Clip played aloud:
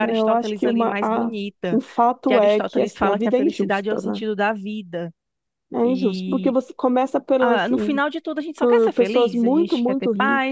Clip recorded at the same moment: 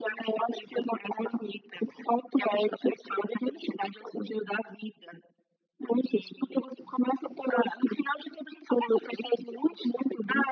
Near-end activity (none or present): none